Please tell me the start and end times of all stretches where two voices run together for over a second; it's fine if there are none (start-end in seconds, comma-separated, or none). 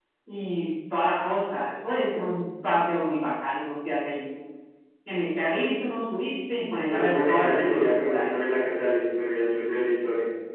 6.9-8.3